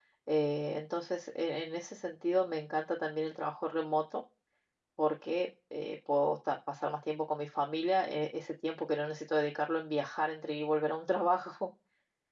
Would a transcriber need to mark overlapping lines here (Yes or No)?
No